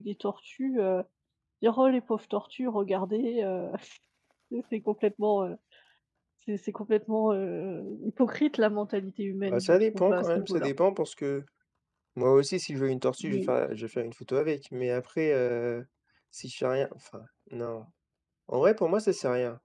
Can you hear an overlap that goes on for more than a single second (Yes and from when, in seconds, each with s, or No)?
Yes, from 9.4 s